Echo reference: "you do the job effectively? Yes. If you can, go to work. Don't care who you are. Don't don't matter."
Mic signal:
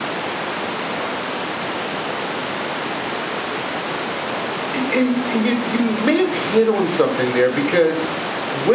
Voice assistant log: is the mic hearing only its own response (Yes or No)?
No